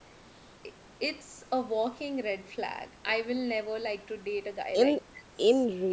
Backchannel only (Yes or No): No